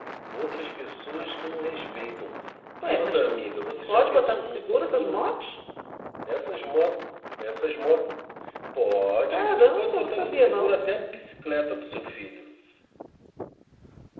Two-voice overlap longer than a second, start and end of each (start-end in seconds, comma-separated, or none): 3.9-5.3, 9.3-10.7